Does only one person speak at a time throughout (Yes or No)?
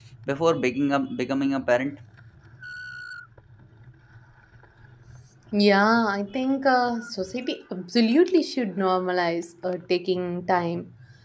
Yes